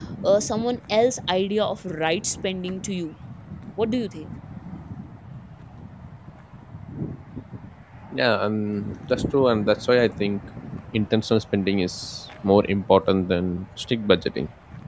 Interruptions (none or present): none